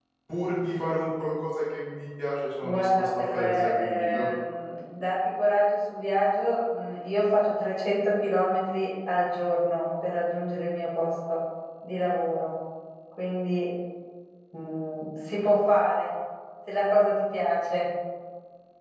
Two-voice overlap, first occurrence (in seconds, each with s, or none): 2.6 s